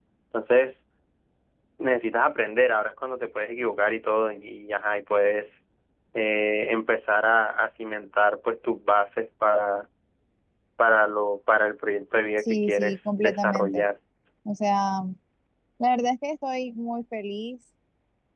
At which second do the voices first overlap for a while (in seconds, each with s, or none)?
12.4 s